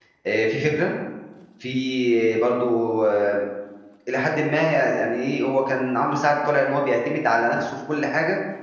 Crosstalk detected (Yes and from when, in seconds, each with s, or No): No